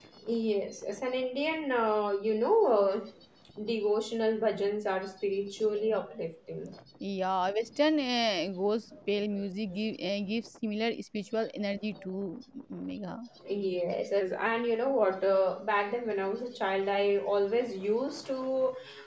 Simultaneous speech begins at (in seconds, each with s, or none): none